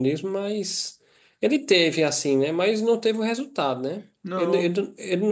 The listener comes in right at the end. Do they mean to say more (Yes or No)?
No